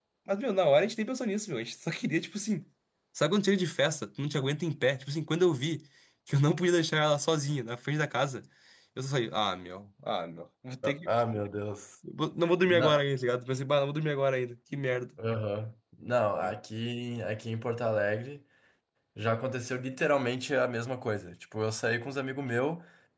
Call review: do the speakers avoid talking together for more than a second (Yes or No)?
Yes